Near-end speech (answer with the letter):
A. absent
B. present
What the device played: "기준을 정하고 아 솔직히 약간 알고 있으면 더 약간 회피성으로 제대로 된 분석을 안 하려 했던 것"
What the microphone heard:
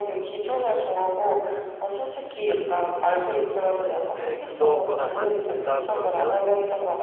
B